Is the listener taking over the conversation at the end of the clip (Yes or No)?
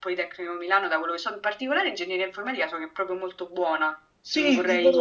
Yes